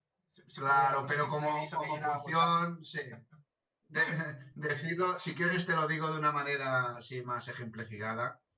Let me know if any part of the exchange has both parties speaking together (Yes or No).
Yes